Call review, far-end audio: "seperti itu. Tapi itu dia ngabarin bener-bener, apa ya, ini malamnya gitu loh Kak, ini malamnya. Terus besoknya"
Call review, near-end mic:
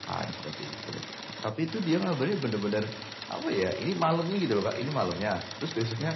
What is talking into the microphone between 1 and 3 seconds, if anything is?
echo only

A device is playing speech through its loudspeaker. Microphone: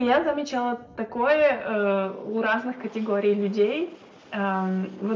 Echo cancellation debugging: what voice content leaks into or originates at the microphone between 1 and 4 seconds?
echo only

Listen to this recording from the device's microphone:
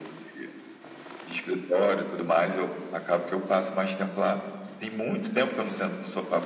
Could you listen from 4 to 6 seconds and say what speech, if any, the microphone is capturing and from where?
echo only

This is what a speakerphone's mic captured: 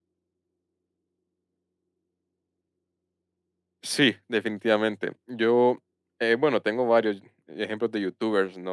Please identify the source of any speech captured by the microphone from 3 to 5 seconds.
user only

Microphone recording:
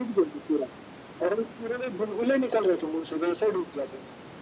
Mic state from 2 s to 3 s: echo only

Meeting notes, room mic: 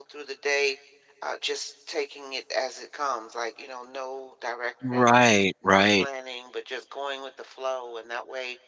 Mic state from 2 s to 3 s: echo only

